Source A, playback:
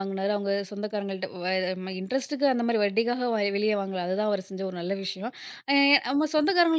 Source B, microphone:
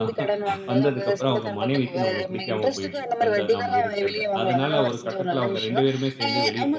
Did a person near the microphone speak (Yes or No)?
Yes